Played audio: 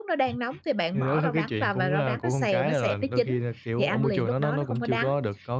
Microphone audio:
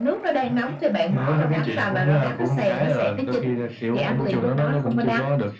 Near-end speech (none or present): none